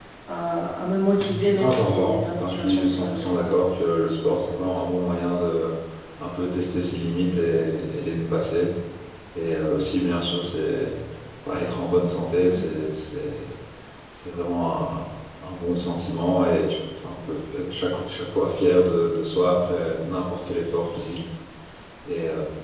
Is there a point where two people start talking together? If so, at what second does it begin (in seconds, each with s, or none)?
1.2 s